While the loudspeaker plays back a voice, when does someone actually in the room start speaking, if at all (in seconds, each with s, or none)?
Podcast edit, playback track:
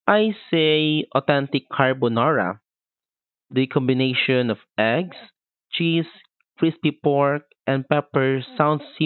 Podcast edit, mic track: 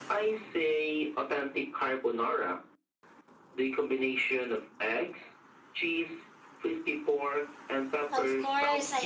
8.1 s